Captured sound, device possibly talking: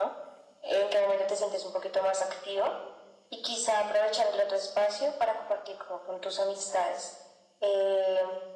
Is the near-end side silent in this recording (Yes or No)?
Yes